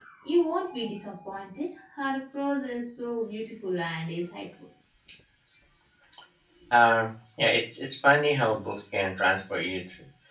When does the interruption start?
none

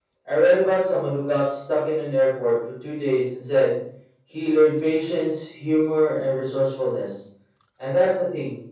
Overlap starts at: none

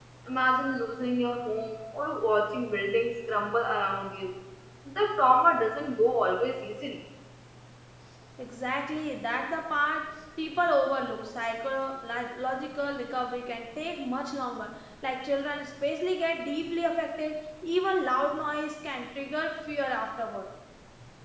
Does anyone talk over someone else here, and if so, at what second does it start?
none

